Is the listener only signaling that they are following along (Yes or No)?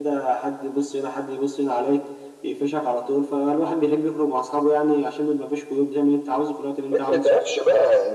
No